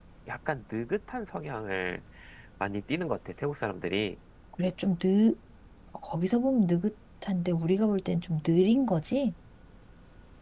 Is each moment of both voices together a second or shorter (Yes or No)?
Yes